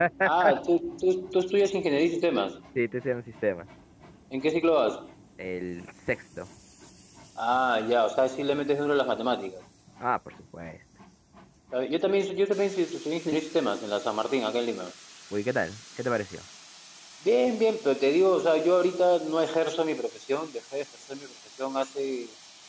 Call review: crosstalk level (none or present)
none